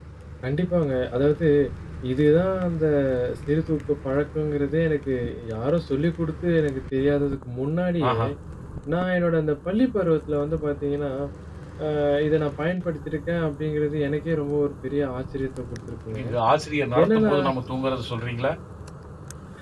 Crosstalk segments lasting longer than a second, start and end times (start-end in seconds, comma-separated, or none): none